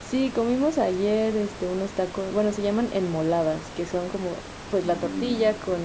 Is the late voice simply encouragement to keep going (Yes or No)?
Yes